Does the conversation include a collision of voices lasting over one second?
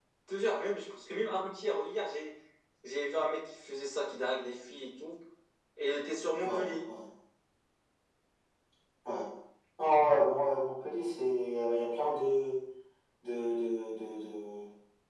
No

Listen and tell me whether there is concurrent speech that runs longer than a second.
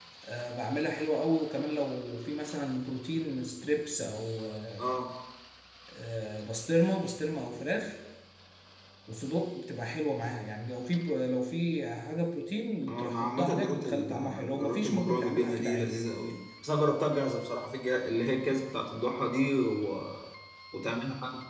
Yes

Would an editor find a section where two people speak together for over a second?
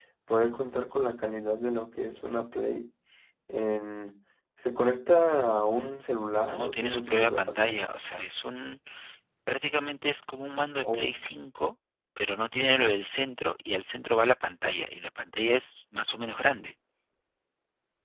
Yes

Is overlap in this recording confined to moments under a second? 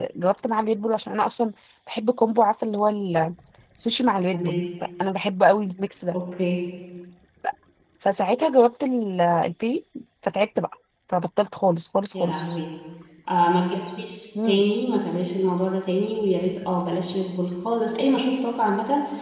Yes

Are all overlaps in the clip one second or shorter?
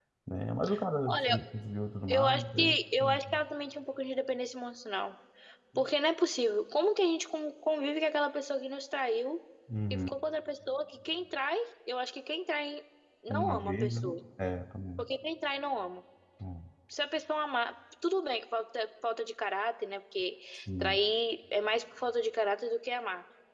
No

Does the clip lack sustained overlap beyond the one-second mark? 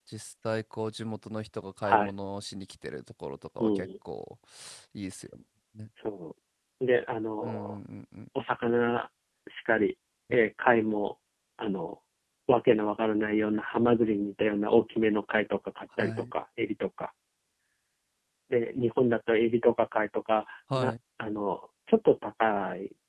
Yes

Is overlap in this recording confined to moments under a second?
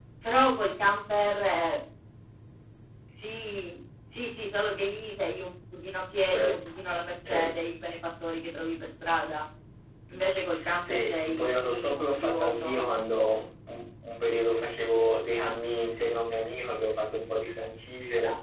No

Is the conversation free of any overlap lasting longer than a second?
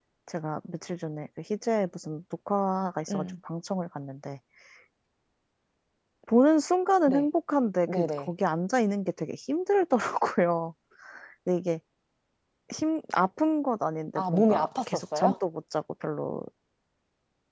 No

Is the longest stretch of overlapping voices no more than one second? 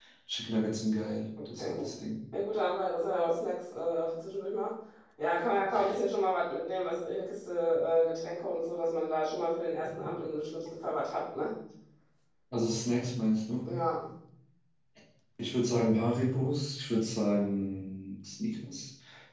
Yes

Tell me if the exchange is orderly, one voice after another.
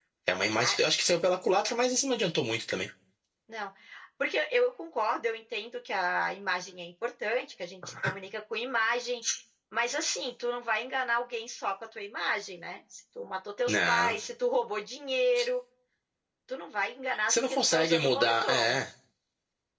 No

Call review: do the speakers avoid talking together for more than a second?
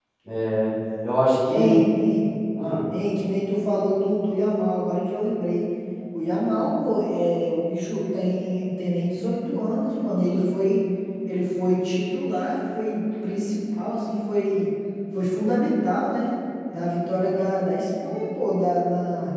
Yes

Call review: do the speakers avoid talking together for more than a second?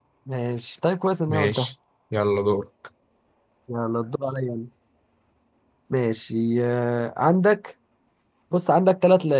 Yes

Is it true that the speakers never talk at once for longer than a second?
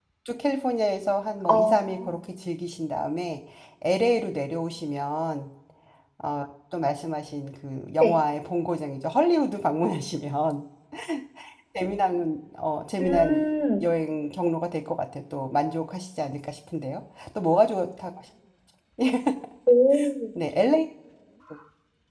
Yes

